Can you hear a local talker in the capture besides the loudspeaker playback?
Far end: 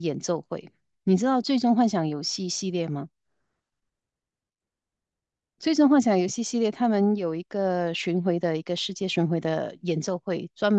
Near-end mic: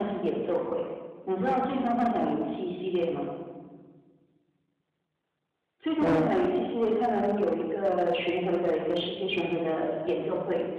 Yes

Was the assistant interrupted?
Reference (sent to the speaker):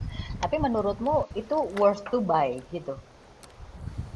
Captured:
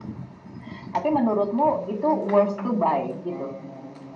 Yes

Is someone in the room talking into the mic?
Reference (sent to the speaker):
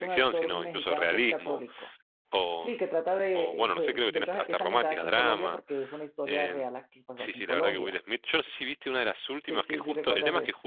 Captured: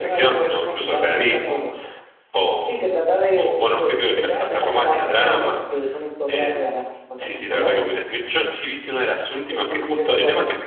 No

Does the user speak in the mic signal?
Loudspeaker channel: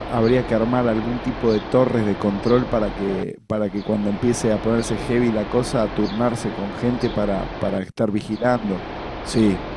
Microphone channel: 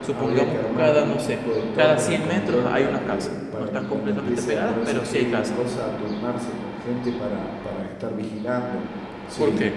Yes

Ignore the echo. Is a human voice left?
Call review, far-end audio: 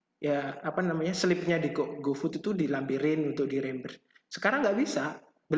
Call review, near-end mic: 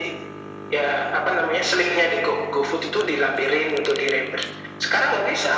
No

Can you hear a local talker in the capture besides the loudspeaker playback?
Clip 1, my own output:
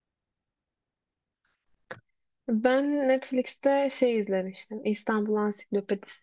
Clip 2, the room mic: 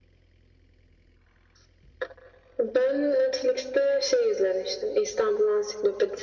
No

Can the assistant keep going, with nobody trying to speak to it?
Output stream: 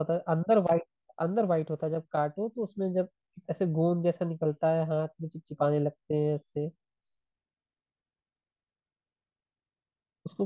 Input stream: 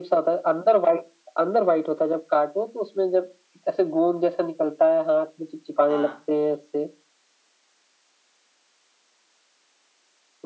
No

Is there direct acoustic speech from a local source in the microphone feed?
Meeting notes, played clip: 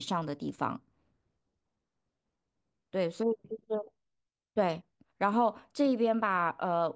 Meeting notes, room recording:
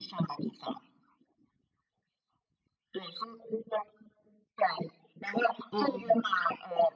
Yes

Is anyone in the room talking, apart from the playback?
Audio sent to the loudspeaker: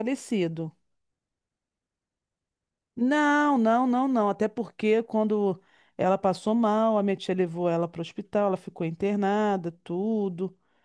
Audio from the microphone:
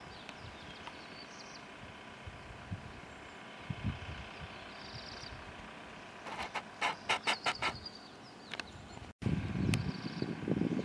No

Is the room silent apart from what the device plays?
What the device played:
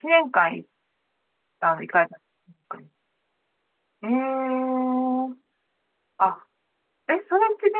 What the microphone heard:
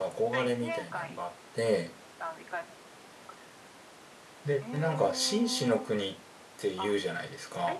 No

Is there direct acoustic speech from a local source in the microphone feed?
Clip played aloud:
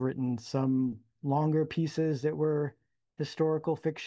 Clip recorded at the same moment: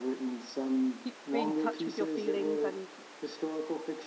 Yes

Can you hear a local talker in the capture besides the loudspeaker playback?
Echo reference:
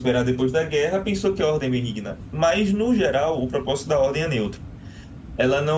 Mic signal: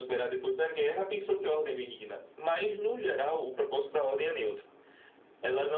No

